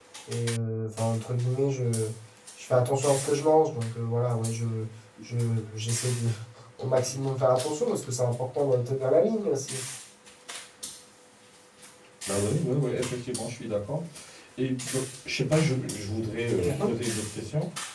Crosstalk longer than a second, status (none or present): none